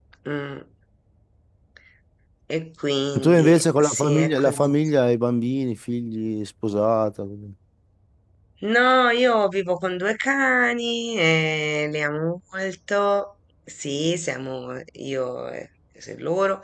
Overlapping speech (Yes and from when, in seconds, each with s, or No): Yes, from 3.1 s